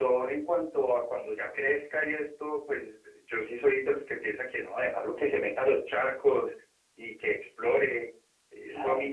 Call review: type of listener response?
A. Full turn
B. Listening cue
B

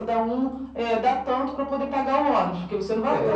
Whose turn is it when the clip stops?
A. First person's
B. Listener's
B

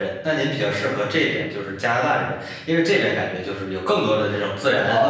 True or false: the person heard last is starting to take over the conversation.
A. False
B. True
B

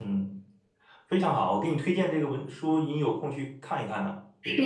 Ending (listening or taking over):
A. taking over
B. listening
A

